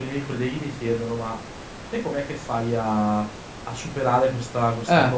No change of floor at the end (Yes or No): Yes